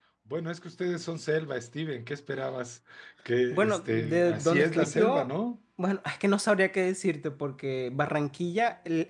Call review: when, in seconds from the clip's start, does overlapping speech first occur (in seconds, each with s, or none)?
3.5 s